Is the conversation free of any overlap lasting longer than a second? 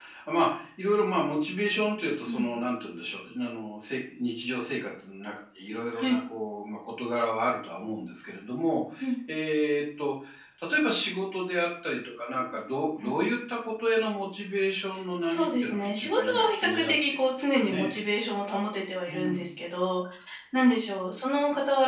No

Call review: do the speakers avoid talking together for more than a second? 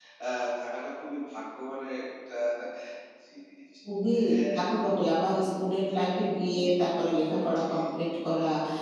Yes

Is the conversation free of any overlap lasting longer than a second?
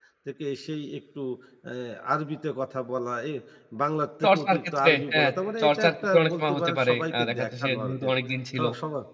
No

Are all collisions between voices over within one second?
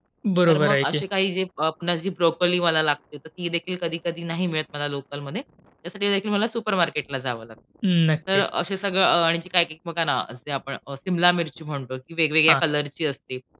Yes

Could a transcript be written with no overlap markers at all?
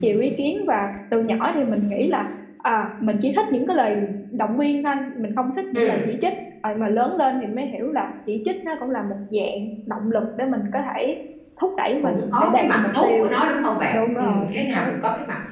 No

